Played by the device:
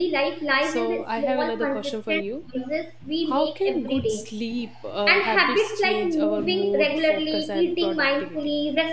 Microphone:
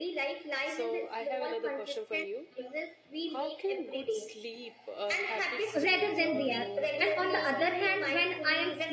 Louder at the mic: user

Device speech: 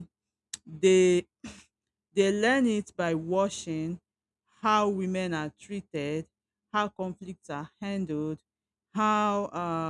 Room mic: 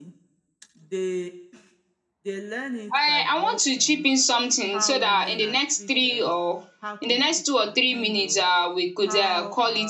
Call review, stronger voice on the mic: user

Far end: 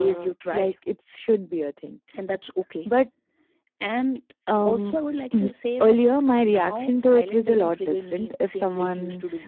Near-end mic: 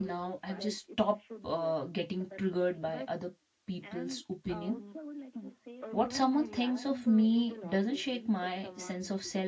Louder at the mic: user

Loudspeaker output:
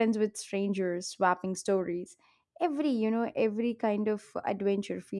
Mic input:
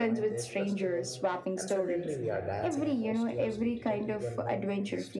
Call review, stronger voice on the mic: echo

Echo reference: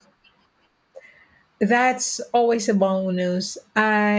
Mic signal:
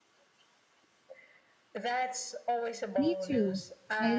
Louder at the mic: user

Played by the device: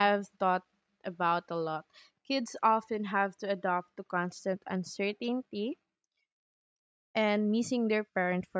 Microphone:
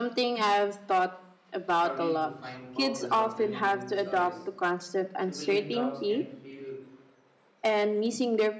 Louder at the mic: echo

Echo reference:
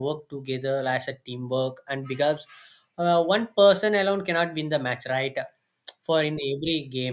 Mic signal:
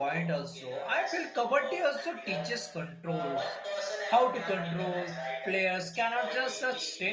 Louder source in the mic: user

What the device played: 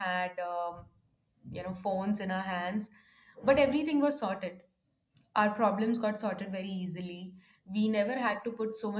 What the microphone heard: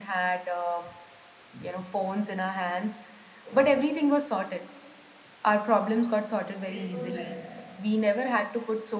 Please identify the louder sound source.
echo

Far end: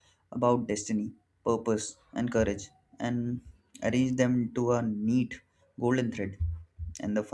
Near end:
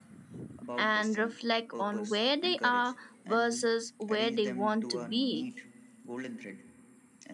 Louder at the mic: user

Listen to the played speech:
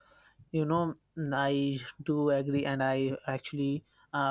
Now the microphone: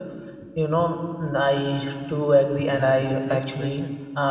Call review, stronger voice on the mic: echo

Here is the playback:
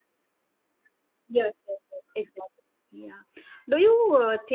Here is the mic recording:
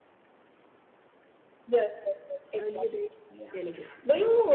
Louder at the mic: echo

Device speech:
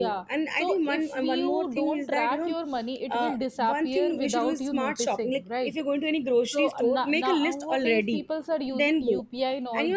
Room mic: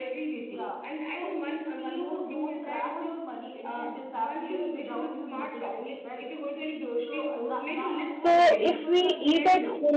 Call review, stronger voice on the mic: user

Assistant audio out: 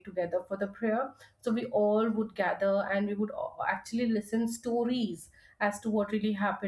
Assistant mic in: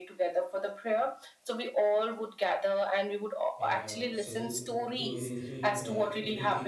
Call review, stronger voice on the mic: echo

